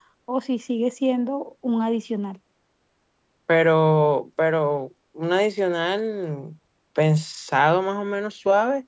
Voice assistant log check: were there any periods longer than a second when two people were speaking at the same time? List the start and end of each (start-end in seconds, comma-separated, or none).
none